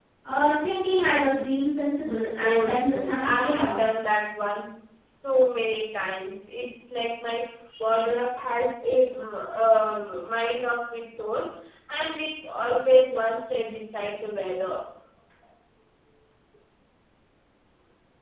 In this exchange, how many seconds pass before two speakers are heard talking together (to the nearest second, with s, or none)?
2 s